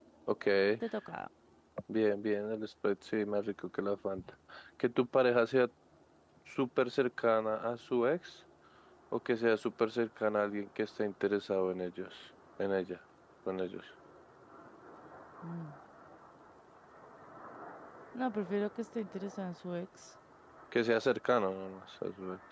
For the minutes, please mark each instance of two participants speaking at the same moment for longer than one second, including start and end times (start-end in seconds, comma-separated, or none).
none